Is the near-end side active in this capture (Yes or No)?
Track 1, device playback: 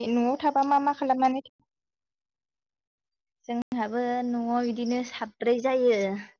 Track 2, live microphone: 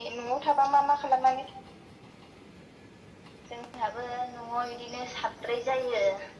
No